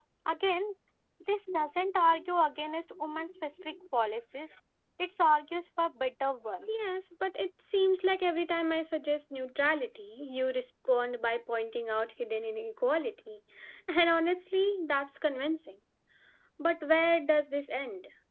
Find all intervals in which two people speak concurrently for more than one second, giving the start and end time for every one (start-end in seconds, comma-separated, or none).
none